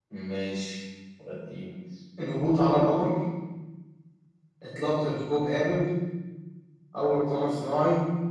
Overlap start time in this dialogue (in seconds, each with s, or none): none